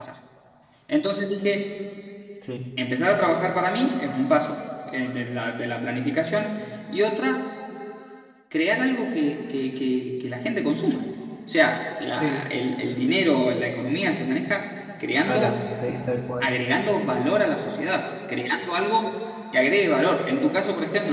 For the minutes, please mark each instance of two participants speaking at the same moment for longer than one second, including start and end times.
none

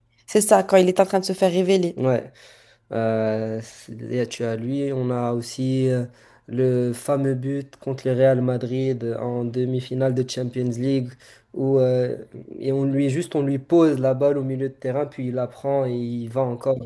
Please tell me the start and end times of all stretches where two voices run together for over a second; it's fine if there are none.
none

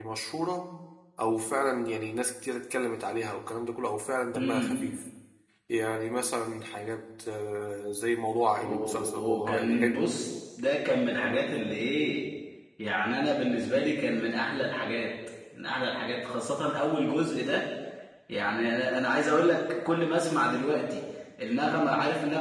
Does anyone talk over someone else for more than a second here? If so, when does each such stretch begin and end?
8.6-10.1

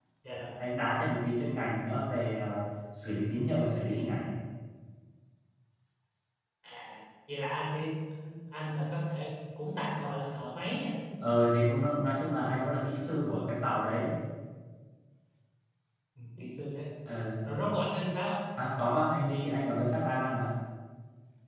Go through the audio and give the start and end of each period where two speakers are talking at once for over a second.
none

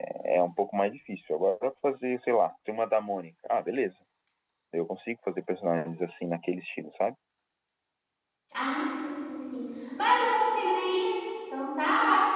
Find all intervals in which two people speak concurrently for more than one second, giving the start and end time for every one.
none

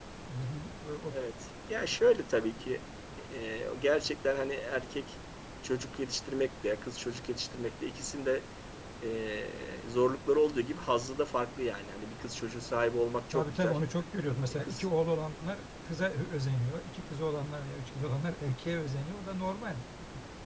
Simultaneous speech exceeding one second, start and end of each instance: none

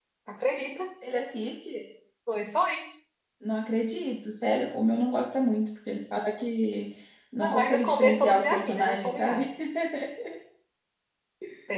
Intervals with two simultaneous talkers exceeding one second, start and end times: 7.4-9.4

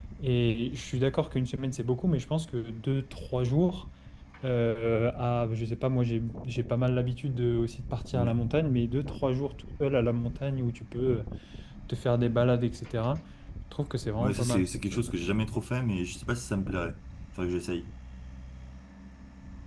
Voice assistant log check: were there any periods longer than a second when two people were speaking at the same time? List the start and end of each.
none

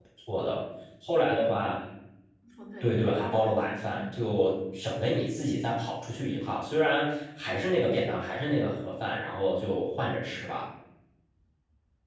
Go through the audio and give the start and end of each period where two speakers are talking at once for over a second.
2.8-4.2

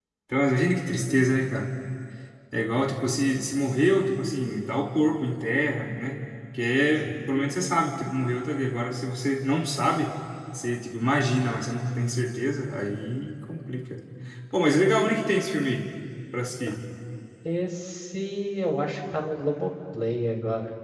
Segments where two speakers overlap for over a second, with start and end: none

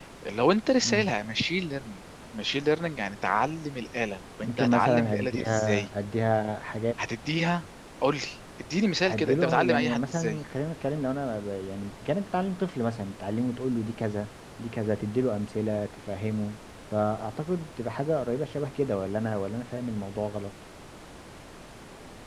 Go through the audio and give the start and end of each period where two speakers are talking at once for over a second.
4.4-5.9, 9.0-10.4

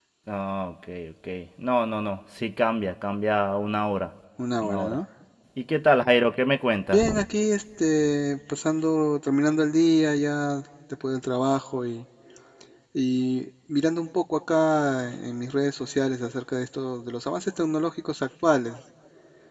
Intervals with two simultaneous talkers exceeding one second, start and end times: none

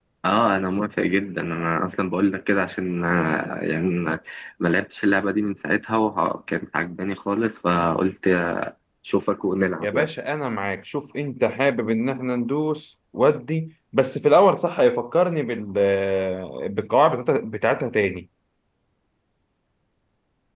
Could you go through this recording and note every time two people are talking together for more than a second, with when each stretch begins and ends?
none

